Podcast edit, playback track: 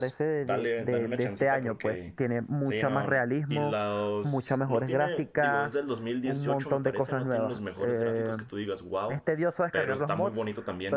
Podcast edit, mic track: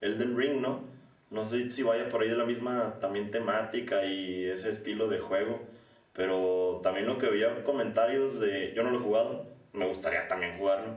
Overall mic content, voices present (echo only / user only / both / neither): user only